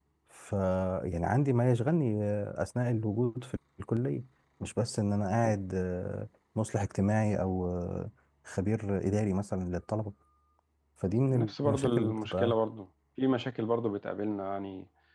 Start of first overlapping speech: 11.3 s

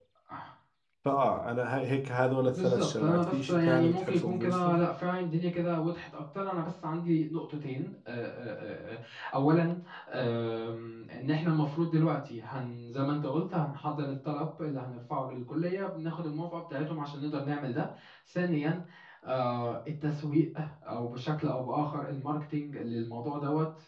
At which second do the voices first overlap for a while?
2.4 s

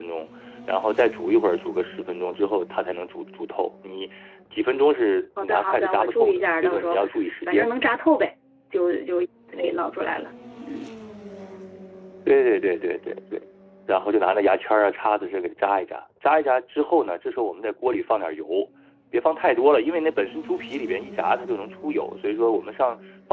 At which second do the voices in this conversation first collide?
5.4 s

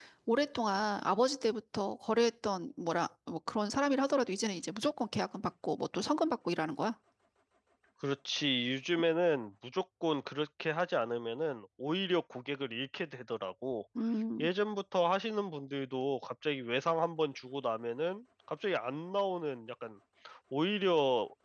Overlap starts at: none

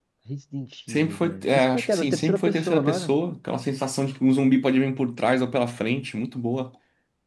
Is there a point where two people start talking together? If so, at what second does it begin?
0.9 s

